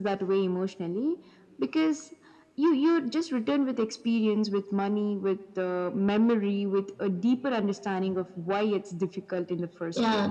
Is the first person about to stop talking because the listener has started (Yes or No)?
Yes